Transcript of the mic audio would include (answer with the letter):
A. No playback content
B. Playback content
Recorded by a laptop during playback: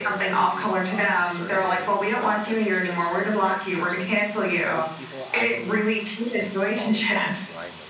B